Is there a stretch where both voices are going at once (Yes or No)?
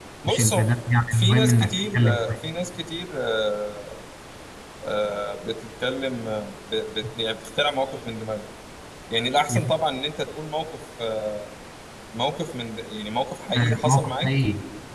Yes